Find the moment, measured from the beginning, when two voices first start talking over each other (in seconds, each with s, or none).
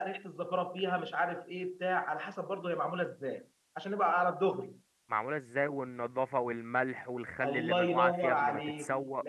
7.4 s